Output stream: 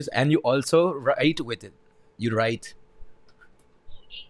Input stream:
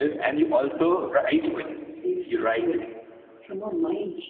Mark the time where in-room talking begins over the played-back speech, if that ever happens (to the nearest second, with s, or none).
2 s